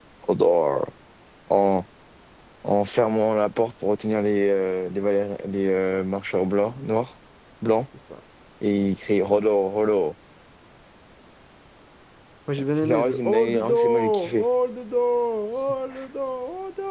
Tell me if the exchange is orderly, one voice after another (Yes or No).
No